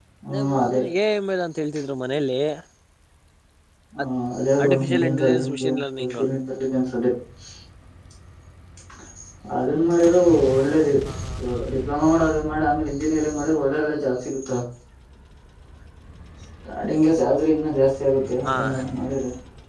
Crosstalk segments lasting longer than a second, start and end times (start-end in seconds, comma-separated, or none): 4.6-6.2